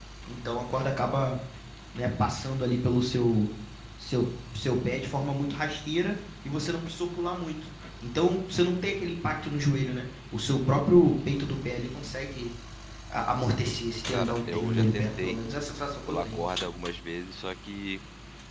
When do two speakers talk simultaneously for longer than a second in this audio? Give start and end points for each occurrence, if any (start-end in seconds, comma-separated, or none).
14.1-15.4